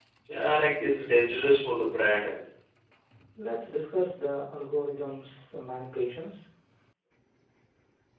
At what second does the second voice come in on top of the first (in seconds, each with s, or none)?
none